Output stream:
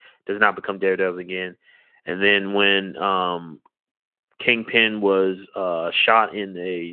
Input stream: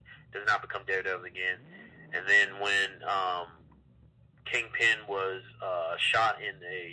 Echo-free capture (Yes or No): No